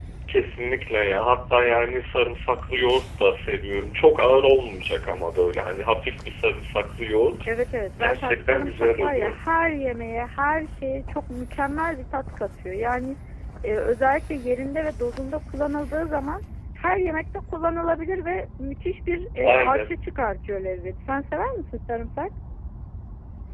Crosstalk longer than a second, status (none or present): present